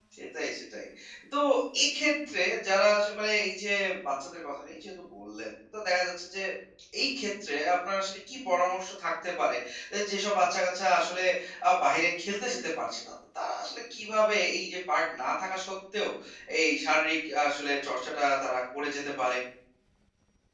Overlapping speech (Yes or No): No